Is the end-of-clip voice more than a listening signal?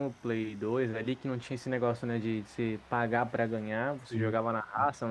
No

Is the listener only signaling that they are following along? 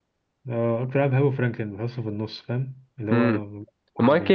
No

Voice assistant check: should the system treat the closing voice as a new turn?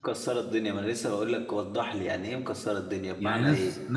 Yes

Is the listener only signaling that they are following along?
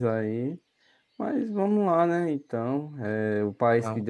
Yes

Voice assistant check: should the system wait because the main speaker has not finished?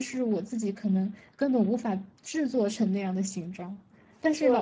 Yes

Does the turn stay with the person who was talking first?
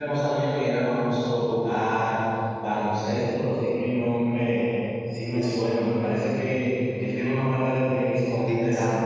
No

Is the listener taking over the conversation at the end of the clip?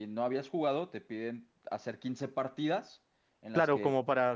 Yes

